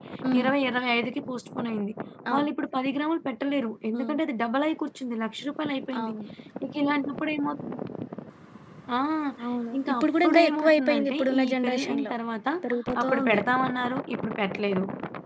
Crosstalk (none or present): present